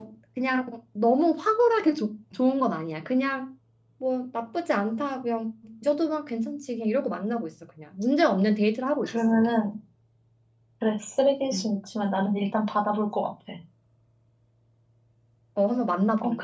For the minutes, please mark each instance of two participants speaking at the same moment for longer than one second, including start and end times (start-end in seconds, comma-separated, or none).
none